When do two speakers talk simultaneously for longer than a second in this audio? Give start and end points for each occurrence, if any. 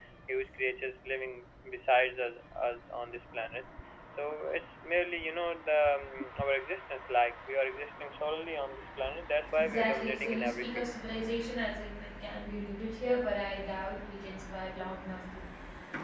9.6-10.9

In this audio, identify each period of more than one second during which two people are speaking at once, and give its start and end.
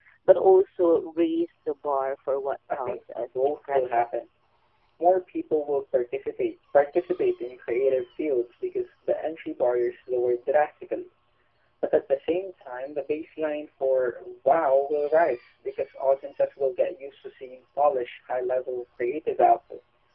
2.7-4.1

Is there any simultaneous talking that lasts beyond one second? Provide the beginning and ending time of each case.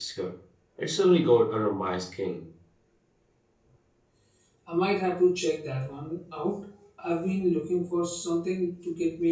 none

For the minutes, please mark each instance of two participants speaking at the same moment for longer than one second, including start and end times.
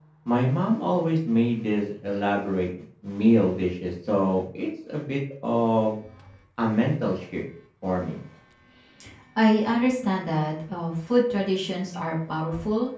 none

